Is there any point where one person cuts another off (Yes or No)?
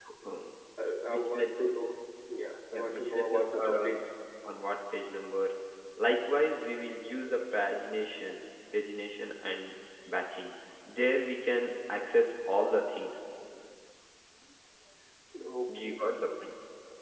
Yes